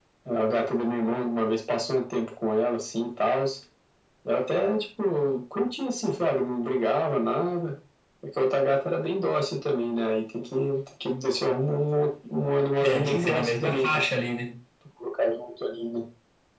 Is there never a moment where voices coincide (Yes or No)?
No